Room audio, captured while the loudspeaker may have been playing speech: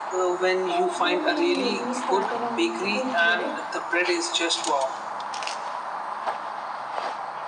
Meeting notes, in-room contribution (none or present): present